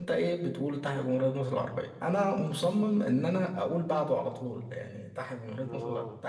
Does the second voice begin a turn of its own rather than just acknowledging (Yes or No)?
No